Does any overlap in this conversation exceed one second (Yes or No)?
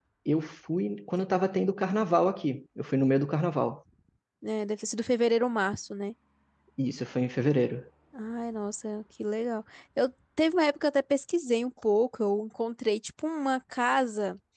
No